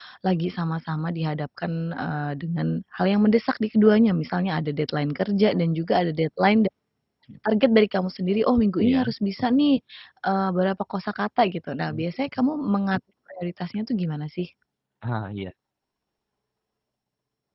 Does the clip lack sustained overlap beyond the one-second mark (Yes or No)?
Yes